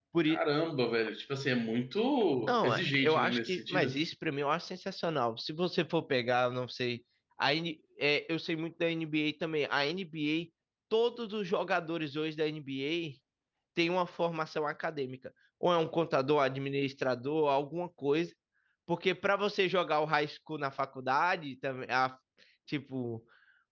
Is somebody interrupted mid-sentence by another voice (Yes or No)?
Yes